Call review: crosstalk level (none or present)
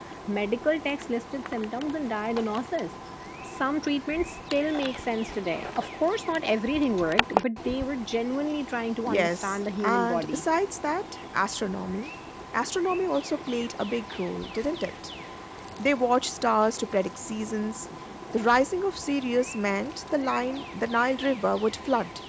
present